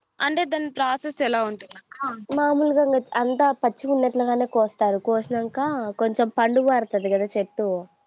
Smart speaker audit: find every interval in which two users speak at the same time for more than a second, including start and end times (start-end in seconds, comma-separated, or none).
none